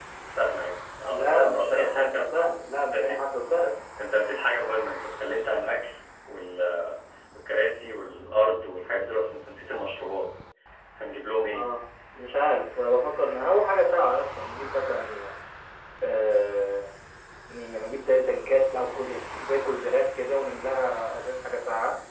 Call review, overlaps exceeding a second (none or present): present